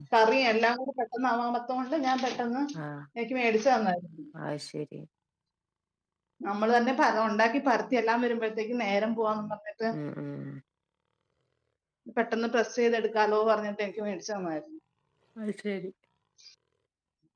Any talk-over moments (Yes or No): No